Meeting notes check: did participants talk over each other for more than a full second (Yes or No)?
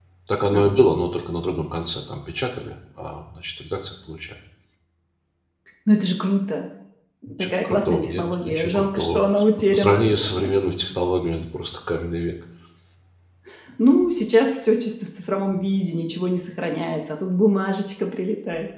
Yes